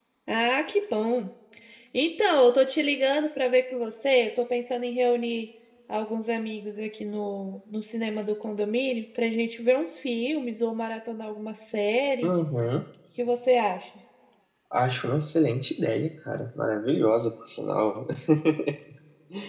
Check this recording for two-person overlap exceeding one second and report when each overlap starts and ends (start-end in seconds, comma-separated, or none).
none